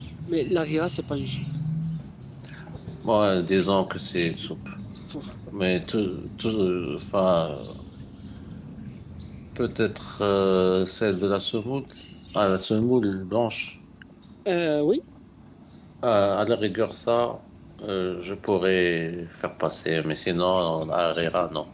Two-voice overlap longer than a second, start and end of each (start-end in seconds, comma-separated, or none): none